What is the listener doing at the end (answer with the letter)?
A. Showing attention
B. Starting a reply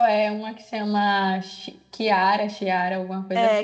B